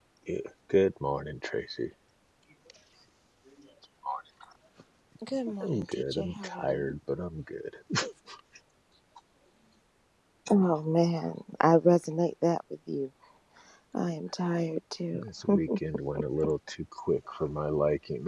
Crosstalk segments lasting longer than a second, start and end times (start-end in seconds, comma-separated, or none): 5.6-7.0